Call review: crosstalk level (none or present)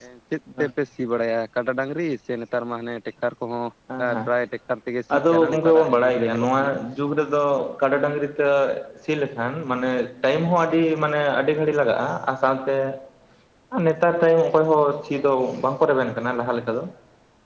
present